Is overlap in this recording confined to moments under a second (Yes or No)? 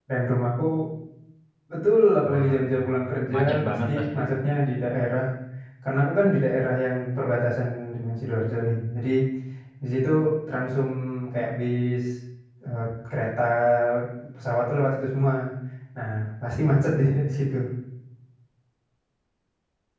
No